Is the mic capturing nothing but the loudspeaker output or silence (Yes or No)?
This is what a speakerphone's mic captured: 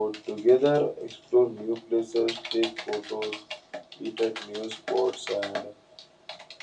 Yes